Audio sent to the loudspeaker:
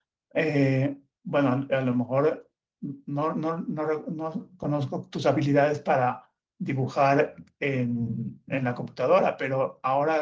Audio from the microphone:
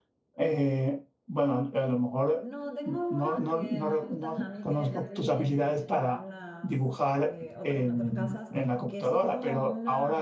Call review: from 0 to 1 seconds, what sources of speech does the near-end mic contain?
echo only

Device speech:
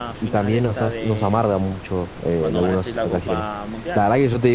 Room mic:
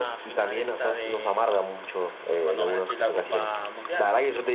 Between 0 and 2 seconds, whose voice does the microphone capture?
echo only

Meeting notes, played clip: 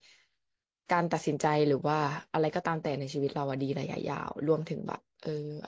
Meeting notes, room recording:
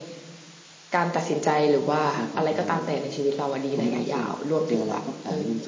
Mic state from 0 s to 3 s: both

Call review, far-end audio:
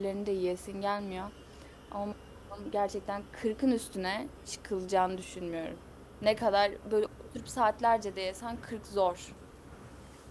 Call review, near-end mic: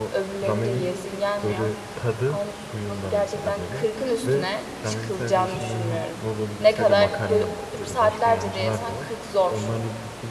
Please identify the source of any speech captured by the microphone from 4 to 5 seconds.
both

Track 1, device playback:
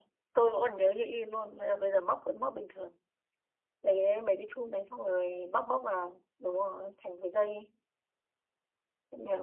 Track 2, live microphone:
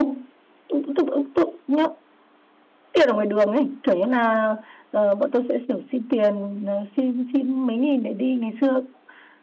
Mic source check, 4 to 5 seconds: user only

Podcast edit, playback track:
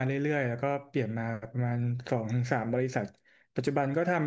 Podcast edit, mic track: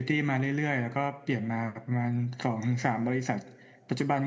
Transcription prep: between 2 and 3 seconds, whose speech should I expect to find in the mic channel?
echo only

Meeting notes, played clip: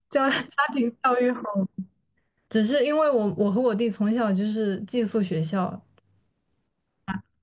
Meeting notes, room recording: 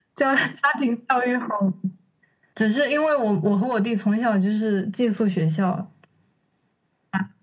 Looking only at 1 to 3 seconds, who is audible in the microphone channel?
echo only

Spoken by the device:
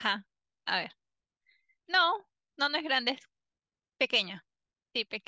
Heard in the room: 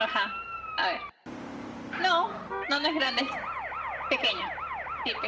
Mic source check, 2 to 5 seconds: echo only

